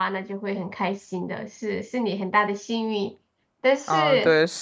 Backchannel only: No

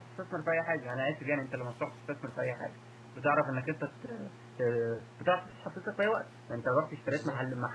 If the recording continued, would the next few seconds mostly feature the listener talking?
No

